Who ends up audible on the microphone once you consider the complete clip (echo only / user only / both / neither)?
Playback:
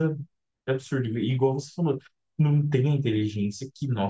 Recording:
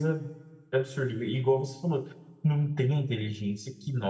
echo only